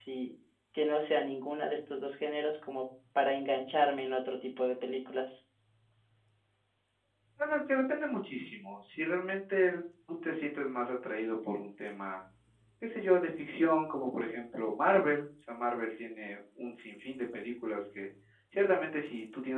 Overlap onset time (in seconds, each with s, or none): none